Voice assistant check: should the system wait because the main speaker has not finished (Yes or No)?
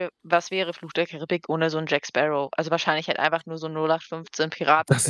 No